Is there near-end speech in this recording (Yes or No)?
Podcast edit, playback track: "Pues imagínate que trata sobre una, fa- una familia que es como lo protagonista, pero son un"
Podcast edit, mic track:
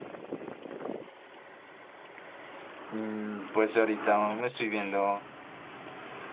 Yes